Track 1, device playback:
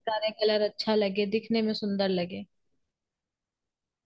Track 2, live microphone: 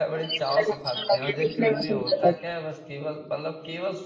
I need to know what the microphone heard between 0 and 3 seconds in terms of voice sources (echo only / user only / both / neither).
both